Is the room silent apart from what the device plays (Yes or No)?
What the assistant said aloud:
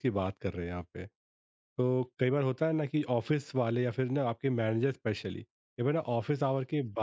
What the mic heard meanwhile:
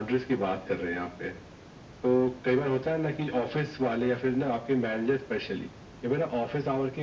Yes